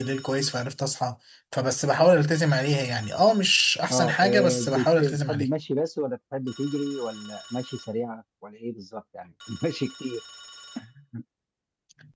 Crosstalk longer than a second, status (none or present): present